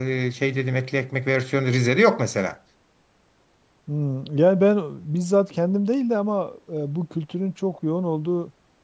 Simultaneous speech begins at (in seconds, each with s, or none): none